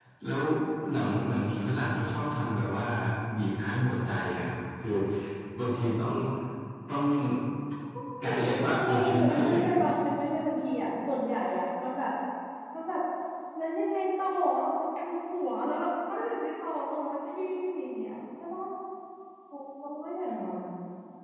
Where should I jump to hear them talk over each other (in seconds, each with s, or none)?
8.2 s